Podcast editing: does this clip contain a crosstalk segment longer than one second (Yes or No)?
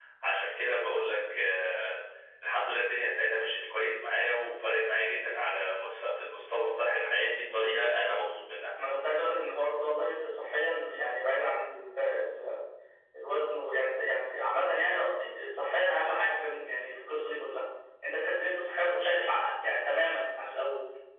No